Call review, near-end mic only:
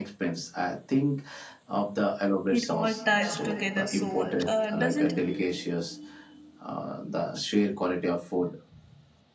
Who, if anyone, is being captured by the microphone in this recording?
both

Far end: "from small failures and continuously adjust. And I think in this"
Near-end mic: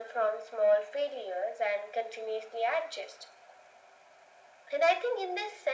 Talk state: echo only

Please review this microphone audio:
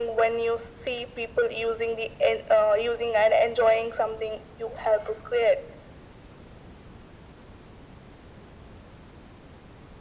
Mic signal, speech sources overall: echo only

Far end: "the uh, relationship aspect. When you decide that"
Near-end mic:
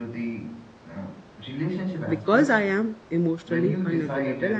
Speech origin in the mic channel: both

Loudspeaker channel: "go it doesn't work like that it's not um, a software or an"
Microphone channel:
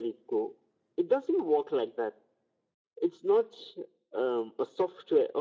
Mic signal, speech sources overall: echo only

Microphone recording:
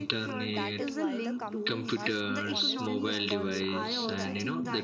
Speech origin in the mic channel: both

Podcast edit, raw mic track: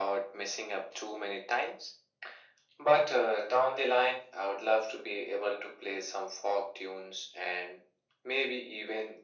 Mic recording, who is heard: echo only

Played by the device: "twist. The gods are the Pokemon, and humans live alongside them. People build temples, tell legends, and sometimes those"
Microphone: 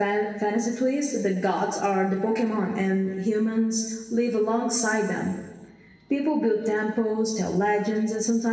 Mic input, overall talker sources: echo only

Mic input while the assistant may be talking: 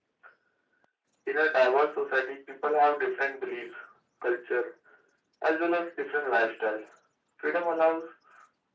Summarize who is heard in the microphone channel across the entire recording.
echo only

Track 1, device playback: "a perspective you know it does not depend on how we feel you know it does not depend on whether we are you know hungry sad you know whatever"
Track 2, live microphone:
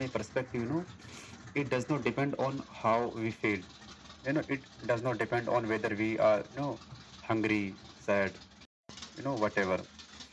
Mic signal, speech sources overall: echo only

